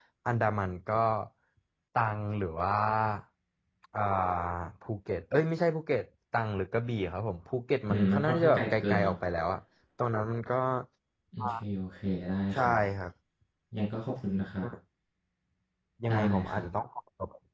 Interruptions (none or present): present